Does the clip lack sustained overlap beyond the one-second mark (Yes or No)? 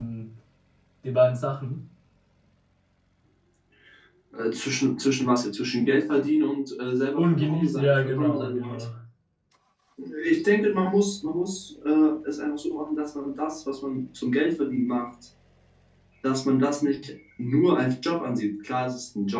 No